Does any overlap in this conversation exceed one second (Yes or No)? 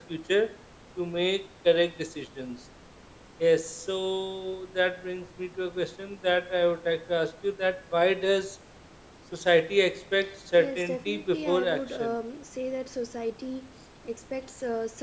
Yes